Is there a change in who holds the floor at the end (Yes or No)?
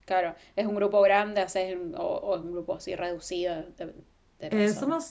Yes